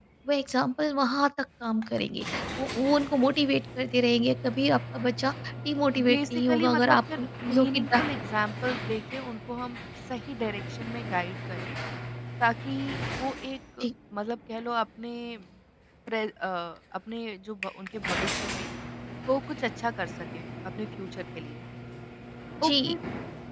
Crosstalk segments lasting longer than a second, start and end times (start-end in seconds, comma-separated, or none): 6.1-8.0